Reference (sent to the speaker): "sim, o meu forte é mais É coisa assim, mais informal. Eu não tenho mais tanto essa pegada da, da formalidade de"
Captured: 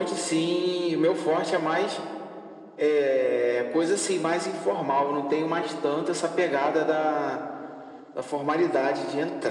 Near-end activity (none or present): none